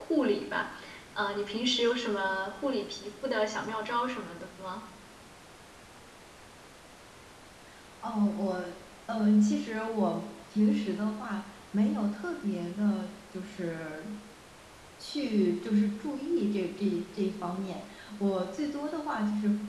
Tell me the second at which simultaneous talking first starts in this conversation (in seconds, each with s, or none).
none